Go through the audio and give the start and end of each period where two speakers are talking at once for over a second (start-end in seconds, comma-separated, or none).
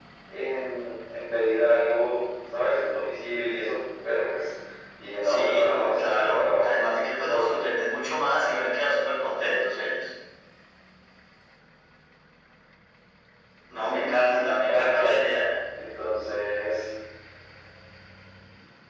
5.2-6.7, 13.9-15.2